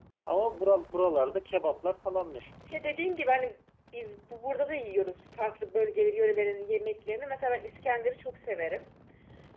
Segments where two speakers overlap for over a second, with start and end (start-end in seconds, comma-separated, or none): none